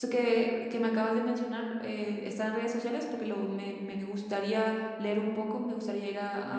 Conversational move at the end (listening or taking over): taking over